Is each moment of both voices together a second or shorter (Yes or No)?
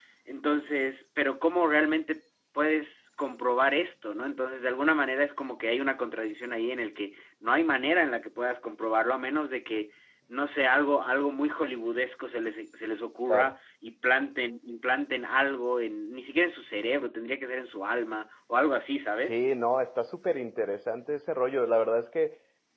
Yes